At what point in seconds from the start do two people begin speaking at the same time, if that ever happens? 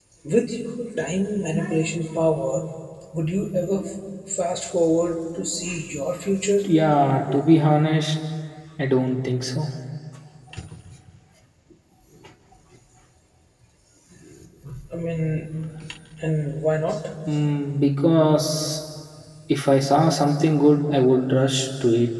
none

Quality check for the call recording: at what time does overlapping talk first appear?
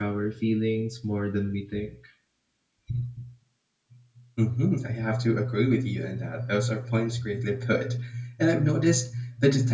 none

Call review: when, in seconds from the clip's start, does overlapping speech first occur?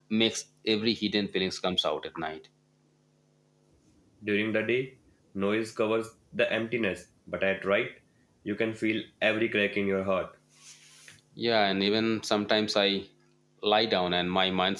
none

